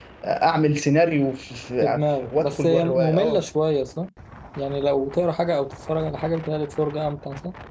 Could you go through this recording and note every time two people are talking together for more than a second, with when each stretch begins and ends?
1.8-3.4

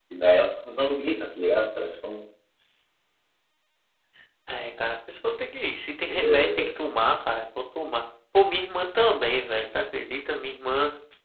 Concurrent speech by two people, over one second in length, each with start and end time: none

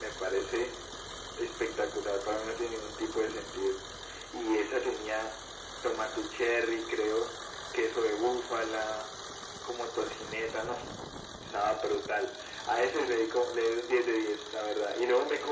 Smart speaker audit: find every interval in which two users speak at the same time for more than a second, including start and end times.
none

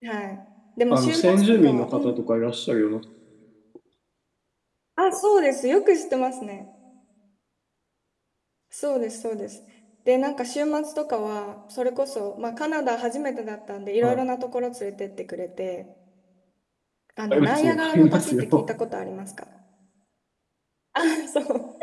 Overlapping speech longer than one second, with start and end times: 0.9-2.2, 17.3-18.7

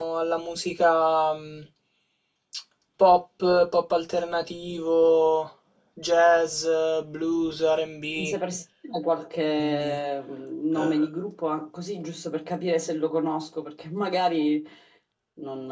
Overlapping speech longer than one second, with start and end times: none

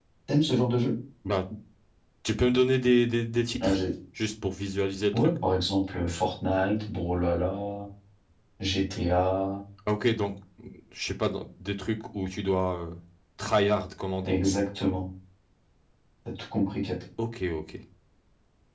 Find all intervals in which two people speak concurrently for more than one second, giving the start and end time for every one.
none

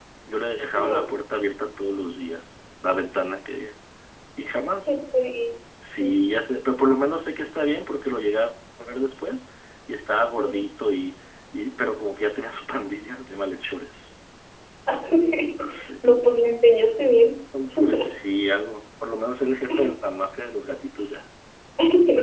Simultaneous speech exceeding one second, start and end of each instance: none

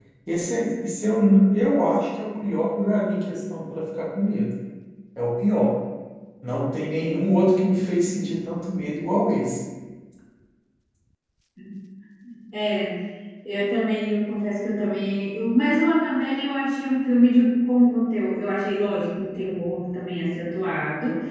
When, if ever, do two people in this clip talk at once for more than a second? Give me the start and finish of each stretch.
none

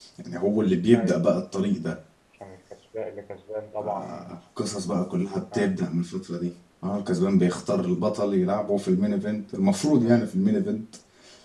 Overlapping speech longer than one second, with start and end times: none

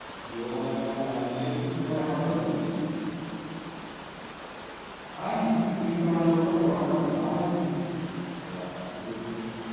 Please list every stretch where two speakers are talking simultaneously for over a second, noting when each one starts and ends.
none

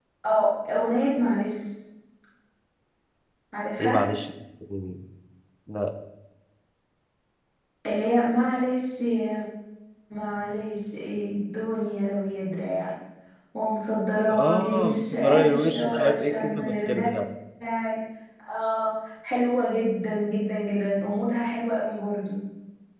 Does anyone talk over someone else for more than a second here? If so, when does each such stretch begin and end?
14.3-16.9

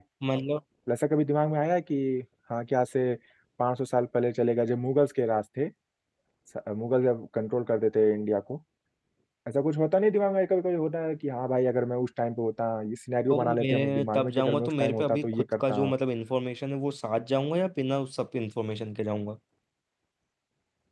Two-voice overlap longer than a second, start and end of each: 13.3-15.8

